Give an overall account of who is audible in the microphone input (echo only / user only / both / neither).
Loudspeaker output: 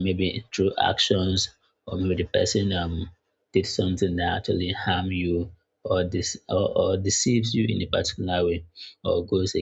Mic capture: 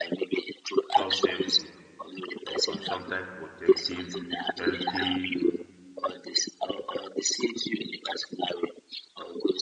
both